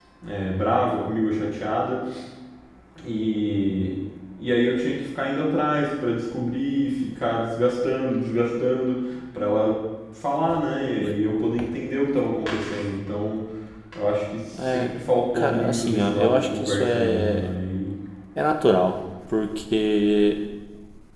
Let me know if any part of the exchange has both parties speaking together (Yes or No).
Yes